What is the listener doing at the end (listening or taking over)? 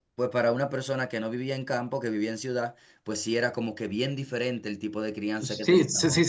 taking over